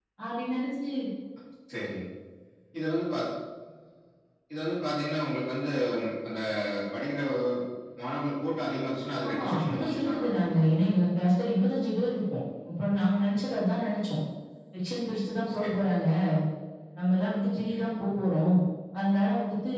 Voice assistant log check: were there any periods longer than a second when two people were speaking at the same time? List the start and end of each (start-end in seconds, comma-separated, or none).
9.2-10.8